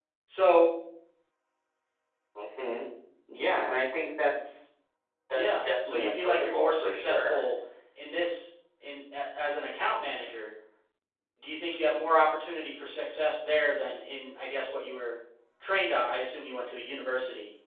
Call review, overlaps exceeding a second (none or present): present